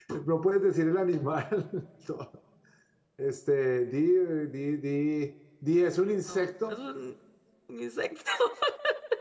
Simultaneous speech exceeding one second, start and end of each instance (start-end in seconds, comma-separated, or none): none